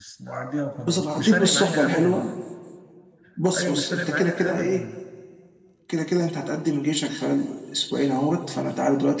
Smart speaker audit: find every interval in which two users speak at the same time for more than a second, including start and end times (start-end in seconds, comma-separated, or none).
0.8-2.2, 3.5-4.8